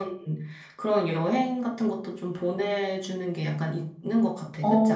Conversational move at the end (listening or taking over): taking over